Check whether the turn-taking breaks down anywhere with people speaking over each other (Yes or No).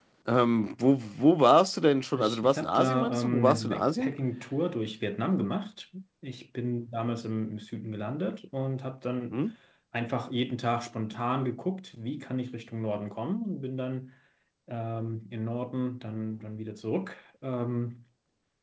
Yes